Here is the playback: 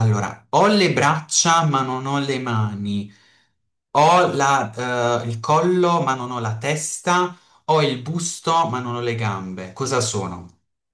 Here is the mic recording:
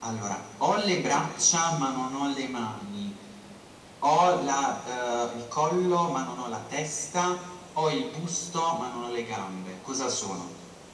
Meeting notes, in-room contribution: none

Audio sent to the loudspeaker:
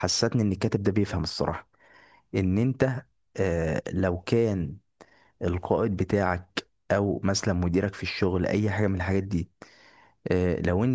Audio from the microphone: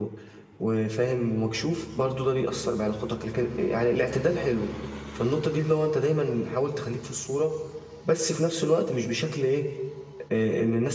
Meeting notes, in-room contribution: present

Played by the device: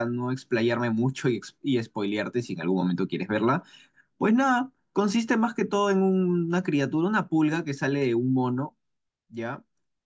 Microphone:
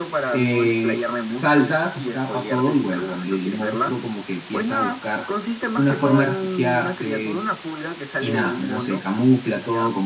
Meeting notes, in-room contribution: present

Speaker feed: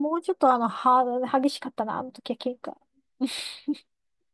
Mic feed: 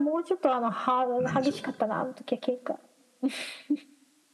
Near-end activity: present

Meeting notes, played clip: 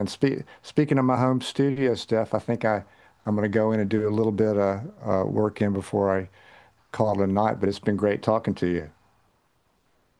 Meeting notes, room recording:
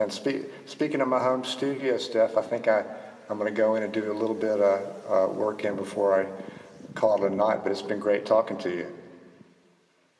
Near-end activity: none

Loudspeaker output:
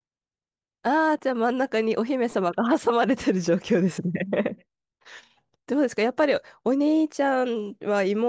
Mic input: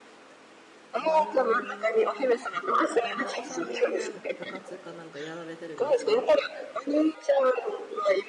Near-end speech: present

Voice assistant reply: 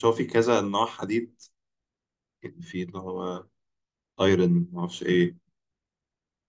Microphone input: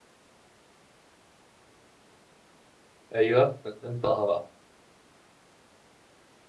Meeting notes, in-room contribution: present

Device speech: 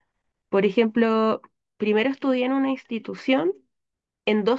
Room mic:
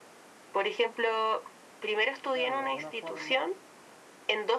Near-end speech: present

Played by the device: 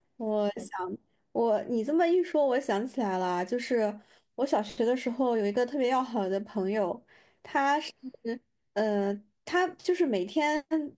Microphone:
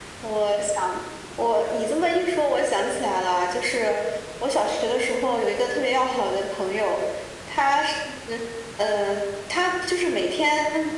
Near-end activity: none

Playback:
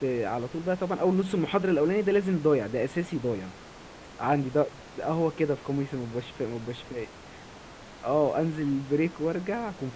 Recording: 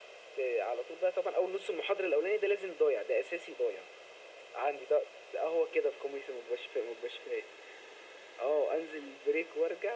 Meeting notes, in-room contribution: none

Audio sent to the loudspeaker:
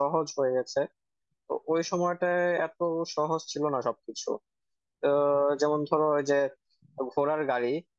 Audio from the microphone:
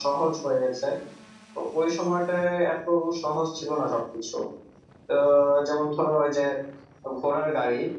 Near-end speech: none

